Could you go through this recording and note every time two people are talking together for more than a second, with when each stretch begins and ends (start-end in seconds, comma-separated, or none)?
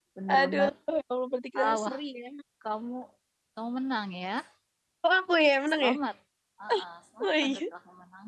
none